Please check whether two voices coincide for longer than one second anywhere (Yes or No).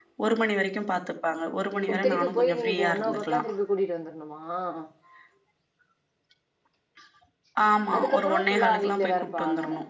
Yes